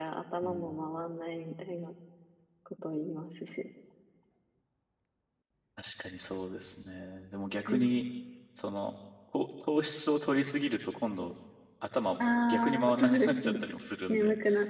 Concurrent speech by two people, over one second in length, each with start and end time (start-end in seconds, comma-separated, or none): 12.2-13.5